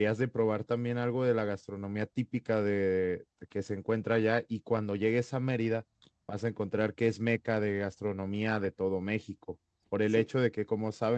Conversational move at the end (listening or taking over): listening